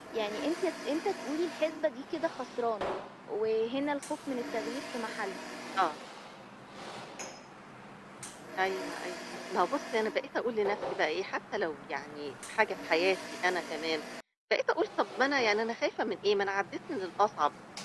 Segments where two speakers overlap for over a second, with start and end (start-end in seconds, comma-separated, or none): none